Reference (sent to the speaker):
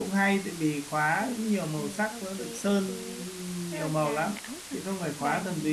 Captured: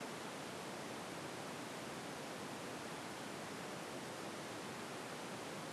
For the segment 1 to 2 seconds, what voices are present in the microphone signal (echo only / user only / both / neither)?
neither